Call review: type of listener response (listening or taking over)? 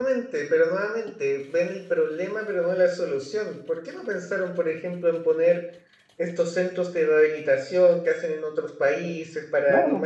listening